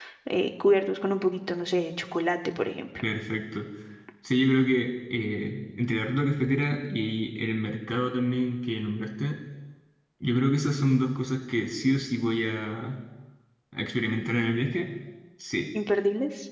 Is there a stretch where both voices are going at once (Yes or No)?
No